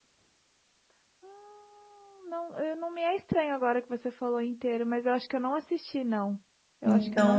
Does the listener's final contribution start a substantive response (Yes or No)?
Yes